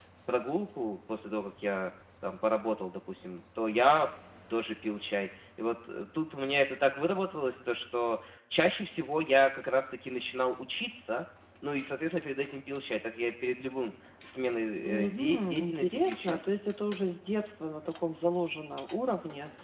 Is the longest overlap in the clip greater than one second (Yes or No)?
Yes